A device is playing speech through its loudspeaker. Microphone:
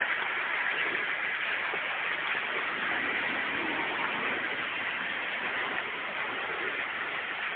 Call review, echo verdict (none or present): none